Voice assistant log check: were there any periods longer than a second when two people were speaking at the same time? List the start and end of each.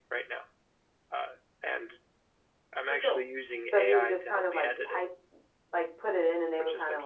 3.6-5.0

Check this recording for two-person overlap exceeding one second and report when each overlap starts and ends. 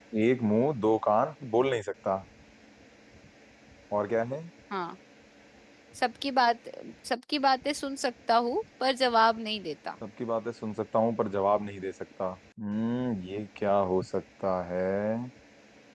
none

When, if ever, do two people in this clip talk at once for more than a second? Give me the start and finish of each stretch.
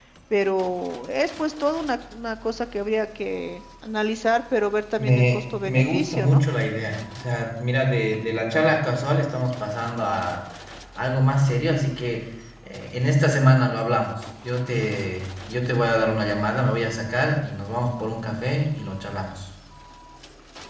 5.0-6.4

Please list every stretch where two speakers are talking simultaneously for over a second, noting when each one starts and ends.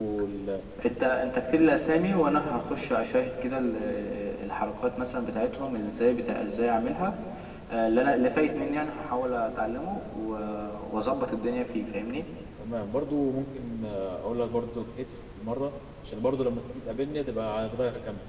none

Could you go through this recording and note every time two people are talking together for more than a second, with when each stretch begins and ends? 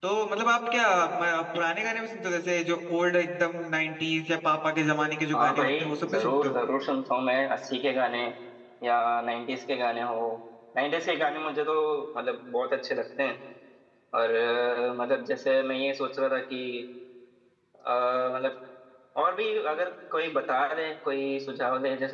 5.3-6.5

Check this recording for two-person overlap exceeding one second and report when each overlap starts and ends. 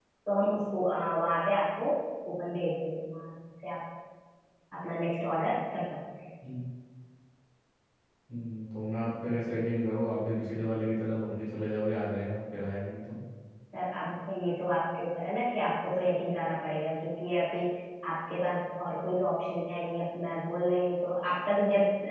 none

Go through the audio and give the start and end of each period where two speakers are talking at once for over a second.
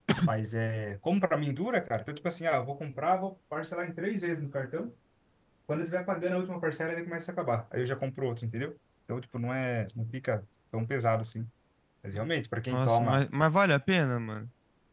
none

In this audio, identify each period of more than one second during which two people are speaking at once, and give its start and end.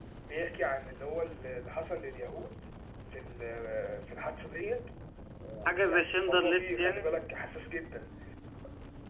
5.7-7.1

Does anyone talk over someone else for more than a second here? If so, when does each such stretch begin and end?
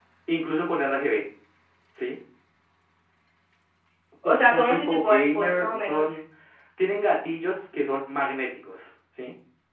4.2-6.1

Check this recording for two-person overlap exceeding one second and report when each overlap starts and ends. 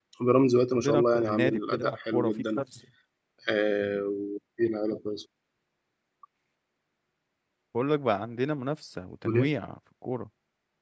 0.7-2.6

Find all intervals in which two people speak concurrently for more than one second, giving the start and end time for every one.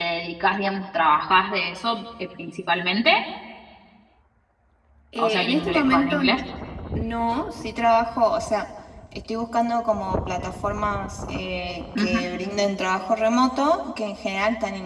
5.2-6.4

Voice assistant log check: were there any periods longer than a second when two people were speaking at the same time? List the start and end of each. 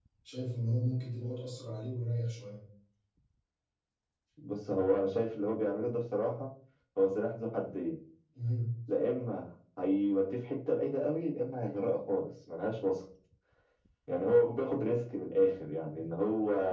none

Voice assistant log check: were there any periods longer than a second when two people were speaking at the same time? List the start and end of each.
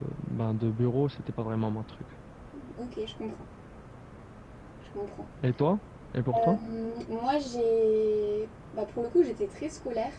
none

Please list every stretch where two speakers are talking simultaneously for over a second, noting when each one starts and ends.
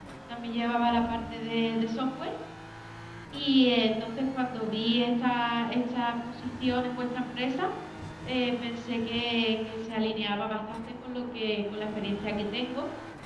none

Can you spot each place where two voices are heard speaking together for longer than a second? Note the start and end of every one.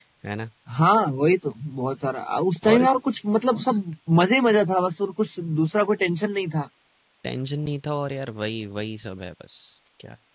none

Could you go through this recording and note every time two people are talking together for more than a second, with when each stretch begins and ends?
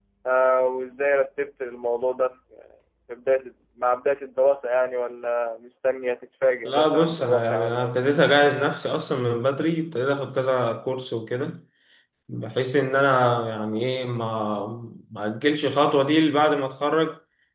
6.7-8.0

